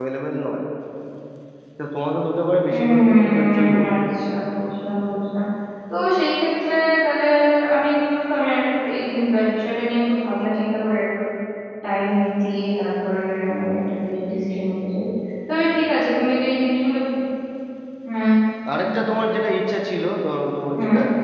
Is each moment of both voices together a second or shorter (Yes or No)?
No